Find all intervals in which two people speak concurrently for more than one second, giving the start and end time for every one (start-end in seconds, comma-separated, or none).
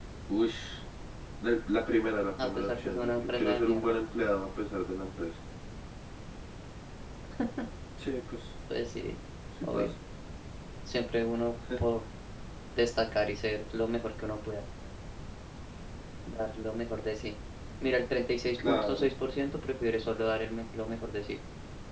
2.4-4.0